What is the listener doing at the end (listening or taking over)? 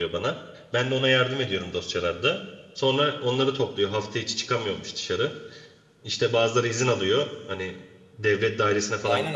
taking over